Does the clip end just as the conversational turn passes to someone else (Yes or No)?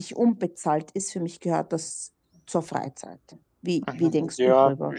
Yes